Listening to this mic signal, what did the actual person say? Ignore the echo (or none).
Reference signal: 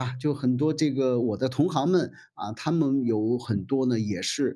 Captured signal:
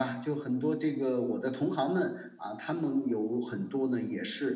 none